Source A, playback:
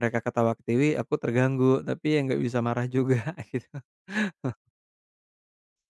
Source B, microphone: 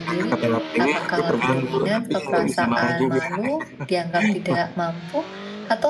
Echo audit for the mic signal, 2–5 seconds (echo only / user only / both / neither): both